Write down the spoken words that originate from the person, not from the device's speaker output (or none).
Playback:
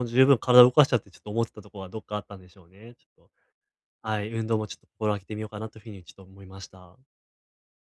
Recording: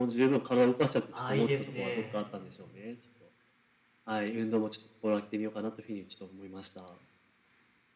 ああ、いいですね。